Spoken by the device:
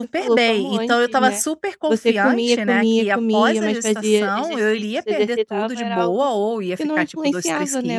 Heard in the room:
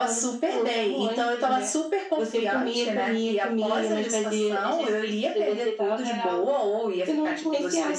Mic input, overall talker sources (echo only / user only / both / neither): echo only